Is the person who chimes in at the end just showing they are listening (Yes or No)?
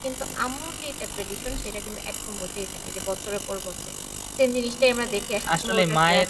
No